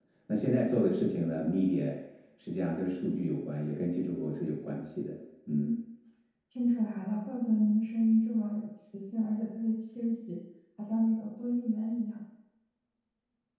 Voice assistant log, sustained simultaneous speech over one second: none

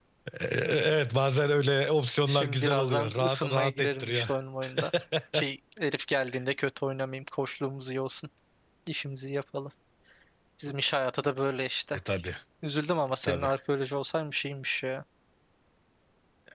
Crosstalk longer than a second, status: present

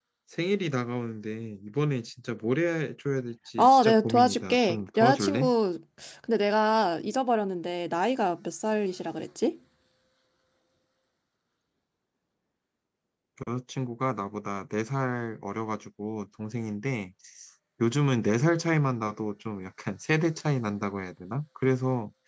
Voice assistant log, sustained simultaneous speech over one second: present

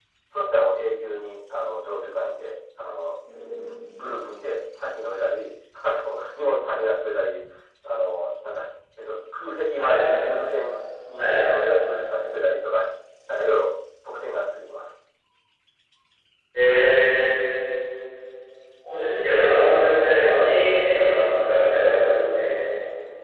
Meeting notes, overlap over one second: none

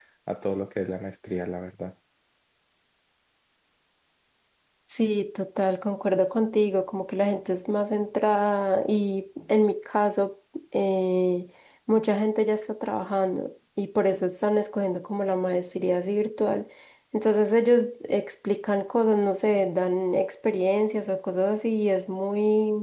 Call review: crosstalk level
none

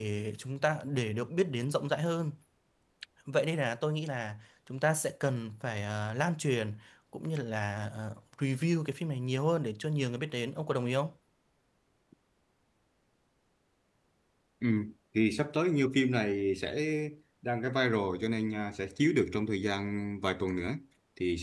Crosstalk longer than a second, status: none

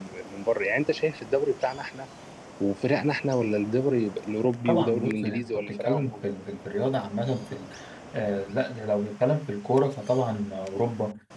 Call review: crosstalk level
present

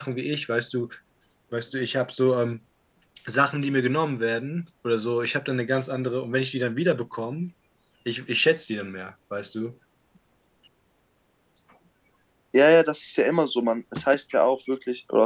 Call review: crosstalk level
none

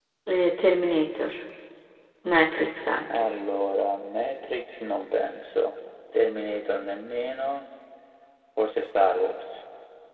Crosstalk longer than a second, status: none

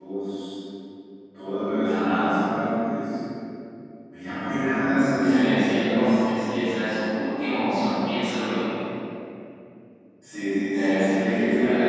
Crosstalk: present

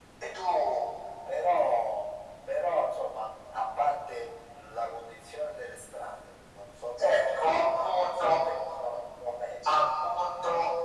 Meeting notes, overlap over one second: present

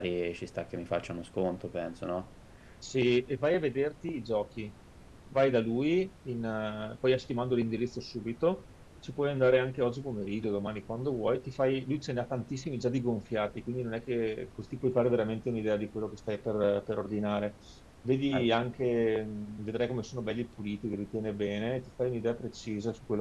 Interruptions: none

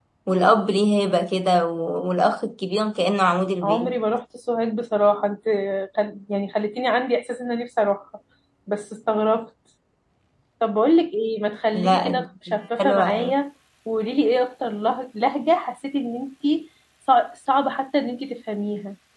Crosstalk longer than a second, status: none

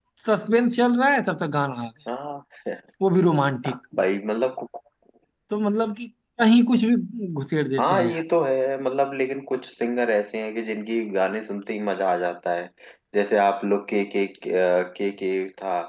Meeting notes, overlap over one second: none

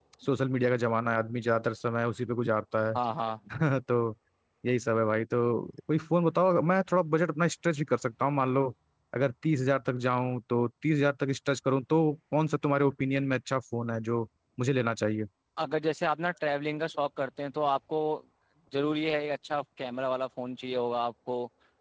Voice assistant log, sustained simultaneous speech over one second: none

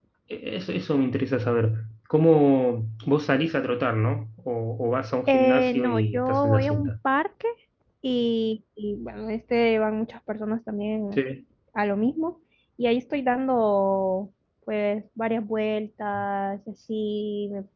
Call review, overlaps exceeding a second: present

